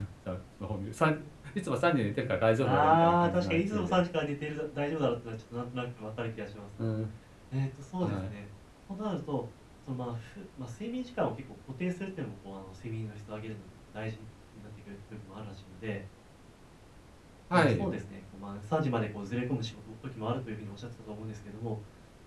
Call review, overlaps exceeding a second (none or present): present